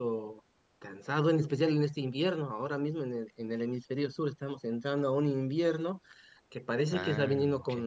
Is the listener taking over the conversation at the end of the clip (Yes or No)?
No